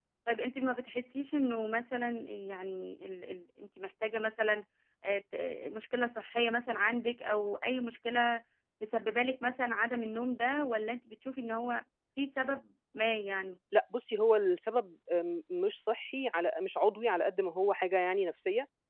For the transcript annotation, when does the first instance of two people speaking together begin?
none

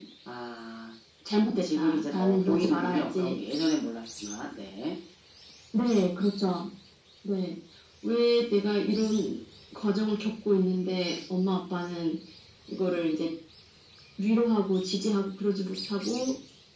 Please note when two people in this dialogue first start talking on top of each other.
1.6 s

